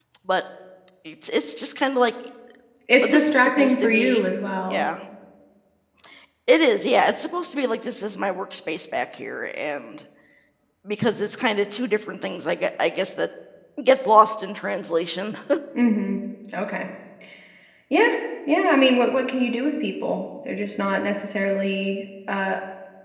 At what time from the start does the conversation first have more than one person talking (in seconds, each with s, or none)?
3.0 s